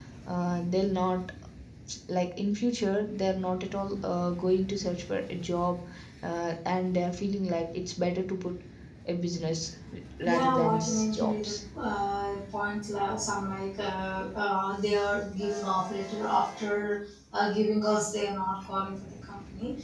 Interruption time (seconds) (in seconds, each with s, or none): 10.2 s